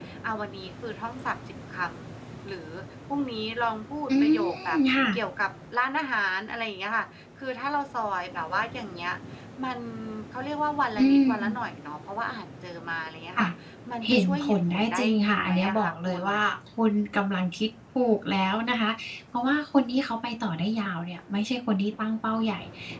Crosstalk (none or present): present